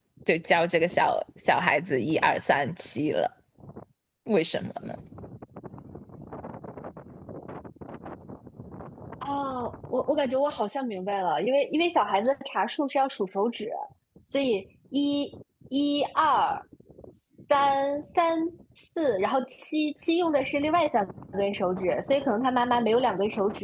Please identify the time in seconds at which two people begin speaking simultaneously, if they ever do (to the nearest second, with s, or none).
none